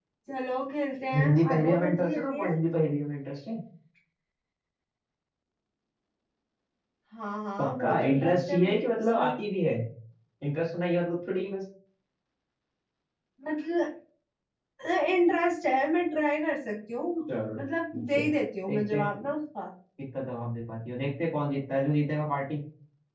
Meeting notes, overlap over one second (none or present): present